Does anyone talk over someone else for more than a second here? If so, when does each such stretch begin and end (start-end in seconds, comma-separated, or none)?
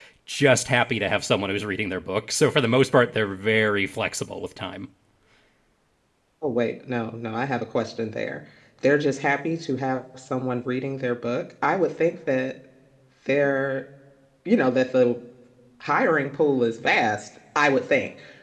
none